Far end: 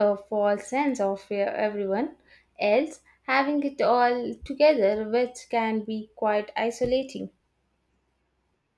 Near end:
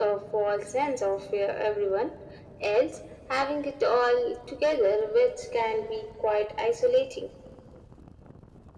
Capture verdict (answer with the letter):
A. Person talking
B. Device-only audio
B